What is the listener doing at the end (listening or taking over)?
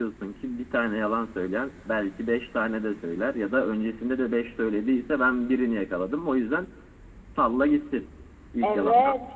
taking over